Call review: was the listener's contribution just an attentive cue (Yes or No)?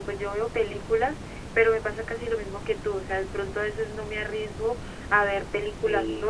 Yes